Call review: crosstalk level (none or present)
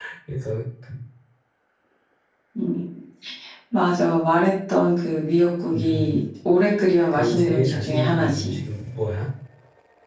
present